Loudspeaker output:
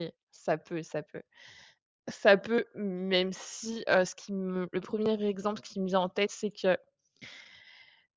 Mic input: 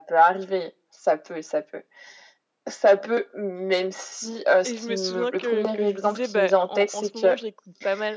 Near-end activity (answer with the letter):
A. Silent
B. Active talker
B